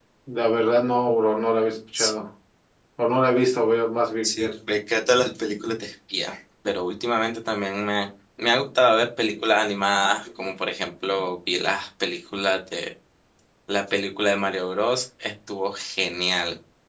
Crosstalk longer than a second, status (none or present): none